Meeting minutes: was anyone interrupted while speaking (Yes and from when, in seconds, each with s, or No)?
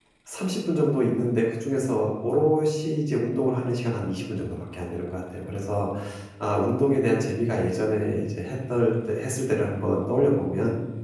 No